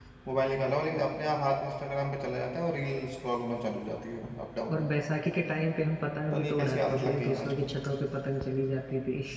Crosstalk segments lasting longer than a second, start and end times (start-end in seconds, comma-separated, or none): 6.2-7.7